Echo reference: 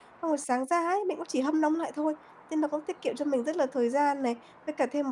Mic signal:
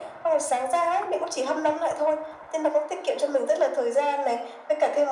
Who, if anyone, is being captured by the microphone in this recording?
echo only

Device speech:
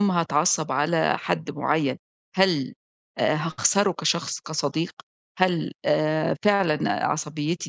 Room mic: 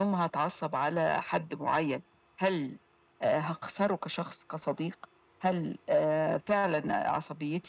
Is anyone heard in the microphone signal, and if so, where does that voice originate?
echo only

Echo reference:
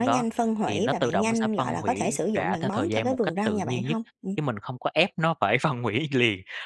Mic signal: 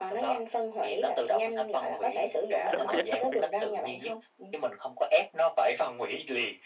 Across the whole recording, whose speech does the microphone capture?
both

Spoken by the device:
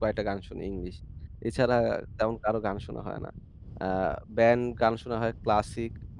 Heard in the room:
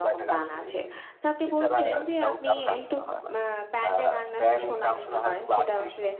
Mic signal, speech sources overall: both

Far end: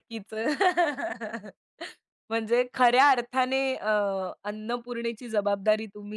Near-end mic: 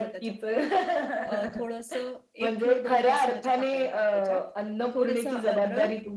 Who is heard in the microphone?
both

